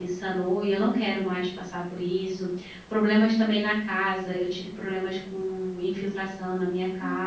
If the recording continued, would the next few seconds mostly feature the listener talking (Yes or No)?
No